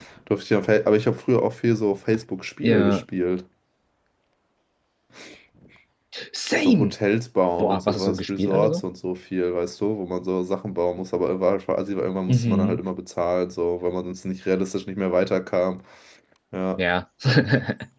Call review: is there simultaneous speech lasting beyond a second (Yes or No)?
Yes